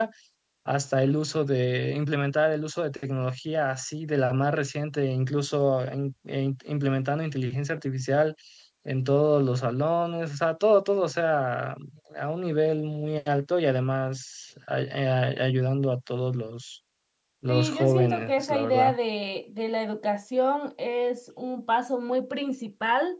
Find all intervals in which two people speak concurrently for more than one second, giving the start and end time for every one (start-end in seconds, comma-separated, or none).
17.5-18.9